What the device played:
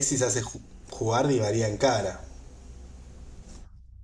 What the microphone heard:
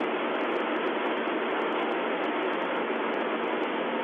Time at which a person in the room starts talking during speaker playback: none

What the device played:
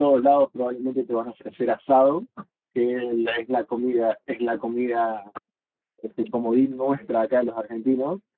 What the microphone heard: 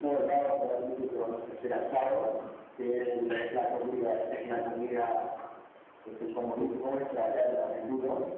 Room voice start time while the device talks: none

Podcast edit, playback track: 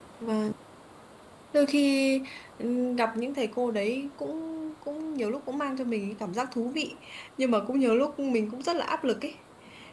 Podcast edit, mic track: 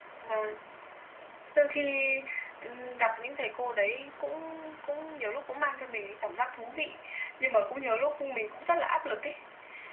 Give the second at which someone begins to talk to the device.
none

